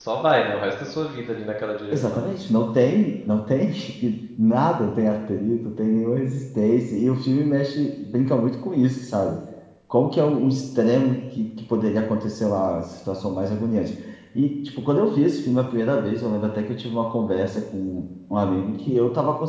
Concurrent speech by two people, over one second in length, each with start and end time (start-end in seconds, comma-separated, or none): none